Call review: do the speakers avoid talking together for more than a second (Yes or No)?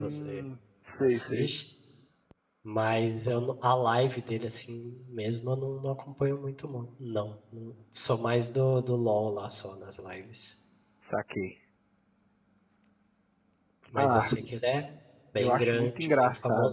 No